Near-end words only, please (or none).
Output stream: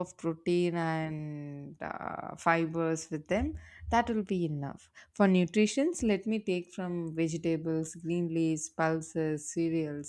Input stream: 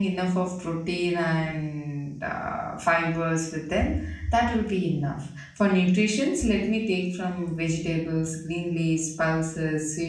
none